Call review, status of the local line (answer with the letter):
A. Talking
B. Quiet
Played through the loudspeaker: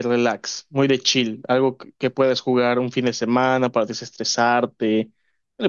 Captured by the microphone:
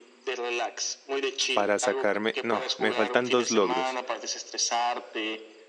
A